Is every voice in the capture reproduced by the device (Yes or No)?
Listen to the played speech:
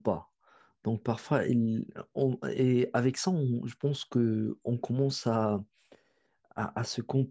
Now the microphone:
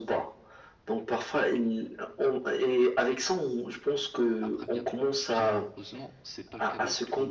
No